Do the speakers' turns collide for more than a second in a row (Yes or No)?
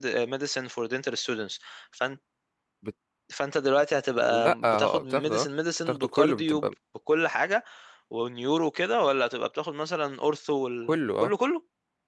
Yes